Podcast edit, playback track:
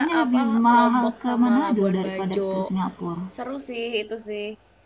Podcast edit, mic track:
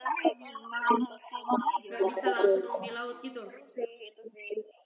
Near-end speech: present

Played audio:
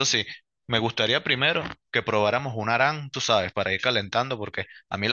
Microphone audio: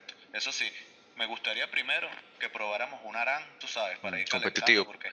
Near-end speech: present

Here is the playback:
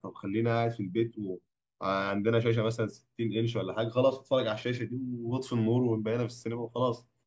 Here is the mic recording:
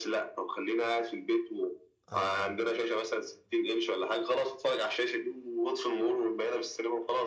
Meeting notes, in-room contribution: present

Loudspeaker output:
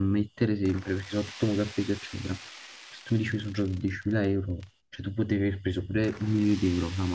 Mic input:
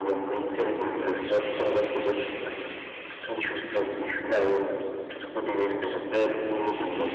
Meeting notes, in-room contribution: none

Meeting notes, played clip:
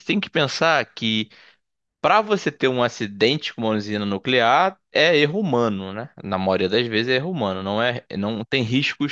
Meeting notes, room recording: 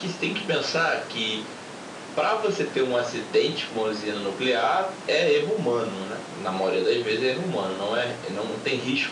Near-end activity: none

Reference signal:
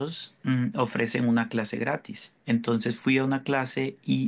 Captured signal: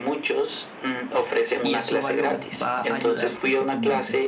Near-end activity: present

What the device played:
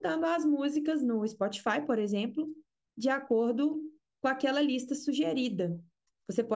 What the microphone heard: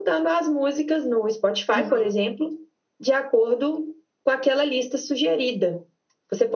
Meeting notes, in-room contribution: present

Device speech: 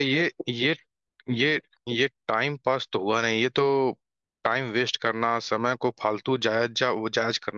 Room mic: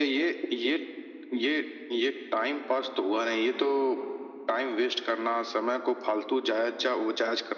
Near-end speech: none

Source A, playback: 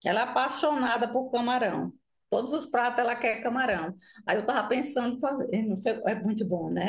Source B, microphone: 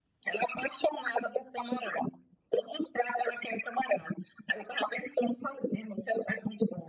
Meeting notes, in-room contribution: none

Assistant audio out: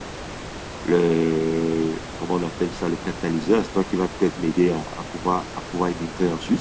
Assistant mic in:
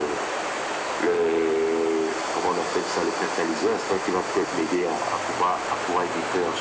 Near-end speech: none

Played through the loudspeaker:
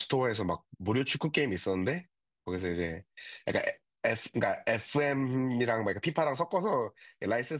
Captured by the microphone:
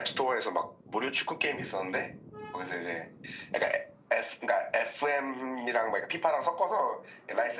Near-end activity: none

